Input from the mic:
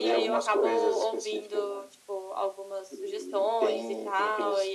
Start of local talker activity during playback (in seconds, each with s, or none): none